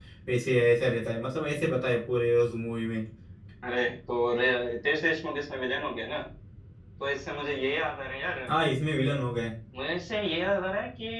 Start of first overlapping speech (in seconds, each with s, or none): none